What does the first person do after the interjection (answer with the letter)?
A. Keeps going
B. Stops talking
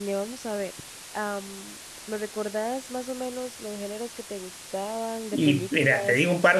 B